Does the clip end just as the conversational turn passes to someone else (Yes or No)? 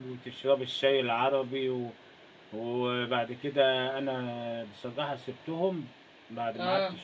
No